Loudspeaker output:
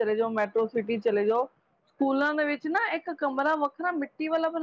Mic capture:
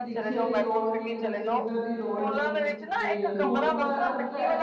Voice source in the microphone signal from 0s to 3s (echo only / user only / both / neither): both